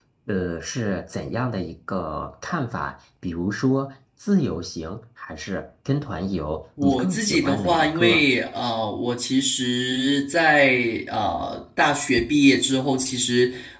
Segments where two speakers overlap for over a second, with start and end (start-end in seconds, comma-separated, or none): 6.8-8.2